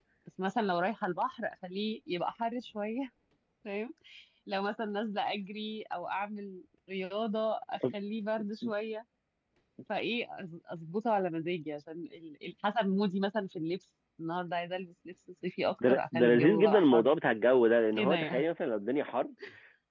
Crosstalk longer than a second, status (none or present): present